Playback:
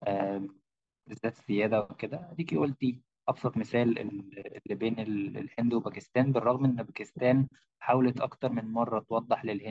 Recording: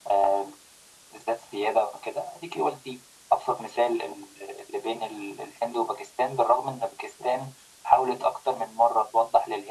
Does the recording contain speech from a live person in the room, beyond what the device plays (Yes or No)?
No